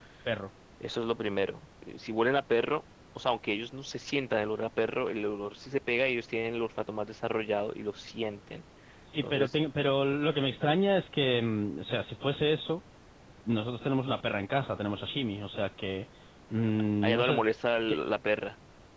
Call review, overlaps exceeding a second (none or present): none